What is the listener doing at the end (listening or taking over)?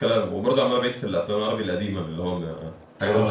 taking over